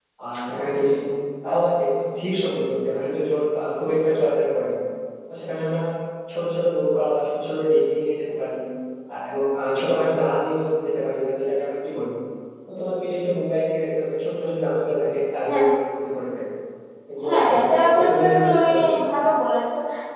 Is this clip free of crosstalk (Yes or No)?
No